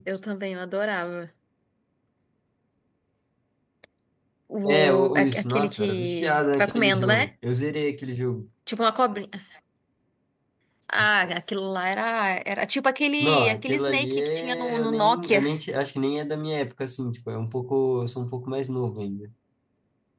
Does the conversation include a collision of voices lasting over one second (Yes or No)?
Yes